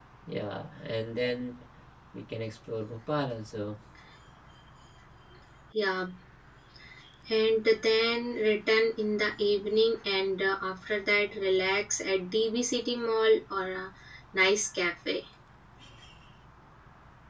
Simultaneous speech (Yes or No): No